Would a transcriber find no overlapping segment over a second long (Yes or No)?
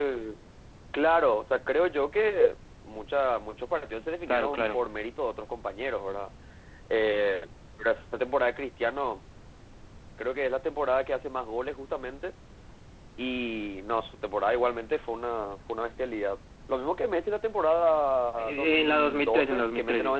No